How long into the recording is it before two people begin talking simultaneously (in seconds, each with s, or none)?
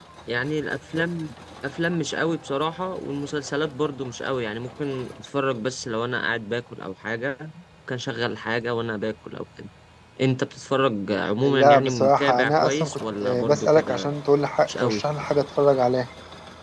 11.4 s